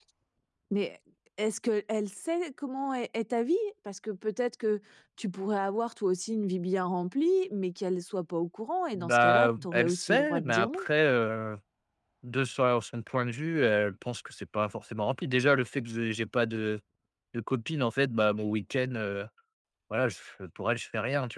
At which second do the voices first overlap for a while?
8.9 s

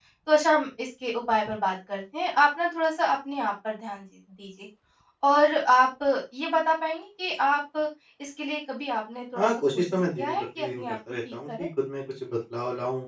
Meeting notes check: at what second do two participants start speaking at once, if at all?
9.3 s

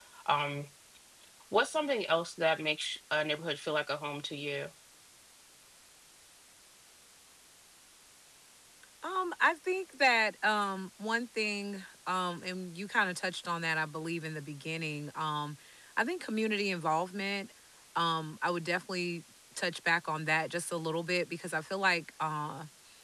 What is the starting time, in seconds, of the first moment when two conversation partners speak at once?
none

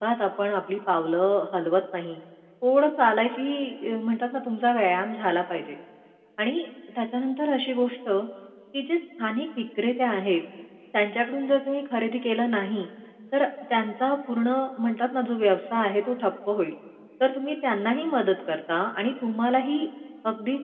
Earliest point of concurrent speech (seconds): none

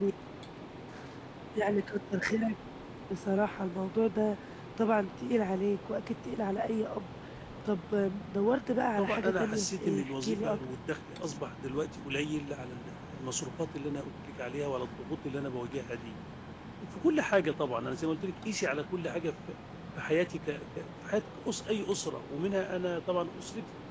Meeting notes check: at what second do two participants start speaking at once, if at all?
9.0 s

